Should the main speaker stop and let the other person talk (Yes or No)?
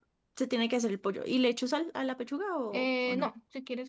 Yes